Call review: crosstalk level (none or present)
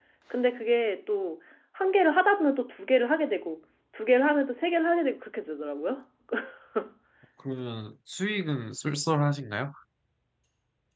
none